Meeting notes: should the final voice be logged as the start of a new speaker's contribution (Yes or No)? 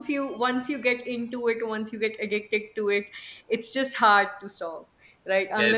Yes